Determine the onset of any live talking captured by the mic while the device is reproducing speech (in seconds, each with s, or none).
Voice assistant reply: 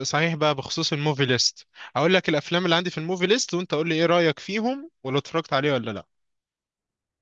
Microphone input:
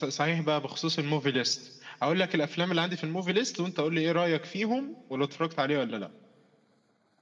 none